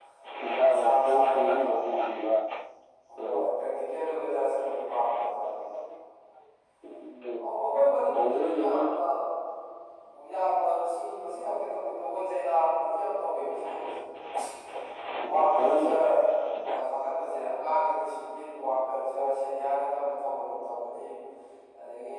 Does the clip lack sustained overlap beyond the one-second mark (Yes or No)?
No